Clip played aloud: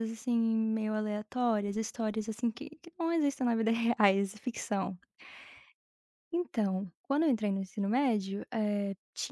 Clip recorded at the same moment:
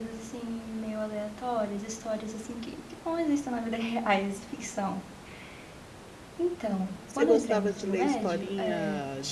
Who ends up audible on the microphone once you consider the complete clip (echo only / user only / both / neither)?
both